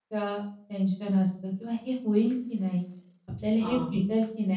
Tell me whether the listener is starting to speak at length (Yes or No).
No